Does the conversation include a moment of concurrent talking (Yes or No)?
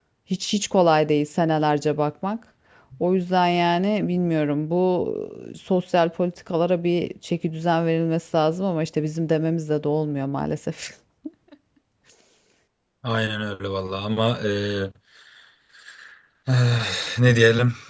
No